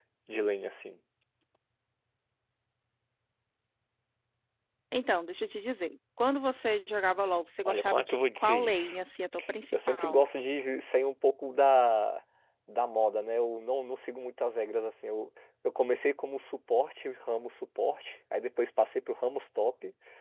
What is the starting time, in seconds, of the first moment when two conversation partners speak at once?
7.7 s

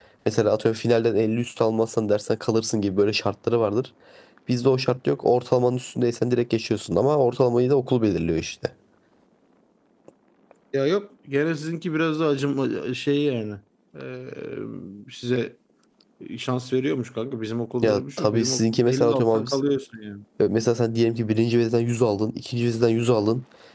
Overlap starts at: 17.8 s

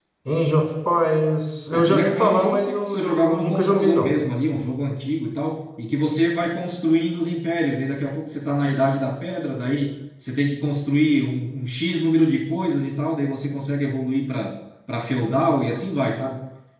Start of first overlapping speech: 1.7 s

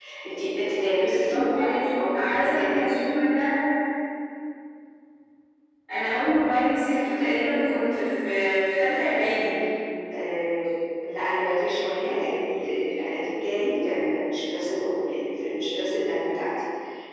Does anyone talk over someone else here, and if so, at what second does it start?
0.8 s

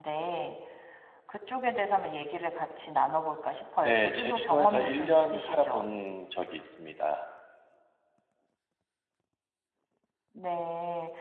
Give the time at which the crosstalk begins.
3.8 s

